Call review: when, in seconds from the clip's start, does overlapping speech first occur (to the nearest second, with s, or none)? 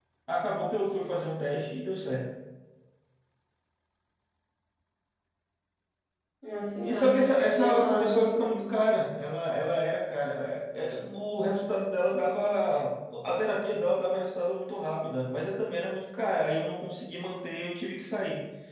7 s